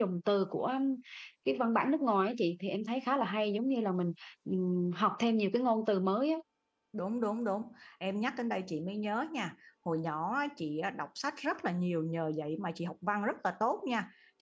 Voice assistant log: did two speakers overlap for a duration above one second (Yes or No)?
No